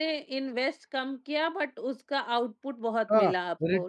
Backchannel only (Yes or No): No